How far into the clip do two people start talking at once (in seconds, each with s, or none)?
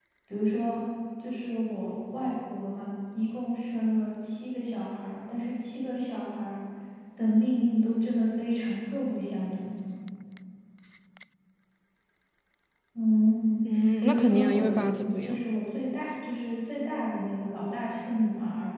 14.0 s